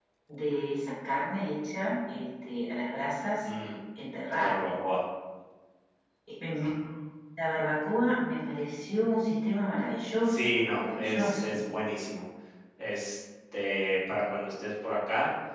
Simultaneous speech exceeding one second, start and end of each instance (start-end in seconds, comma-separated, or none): 10.2-11.6